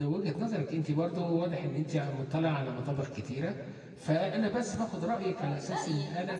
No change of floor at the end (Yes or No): No